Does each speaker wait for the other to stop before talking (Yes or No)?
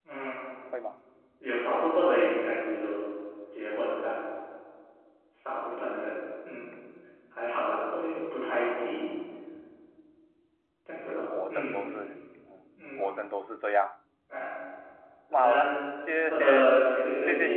No